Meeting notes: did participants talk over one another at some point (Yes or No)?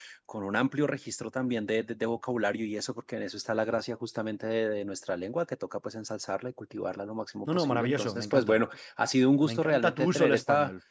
Yes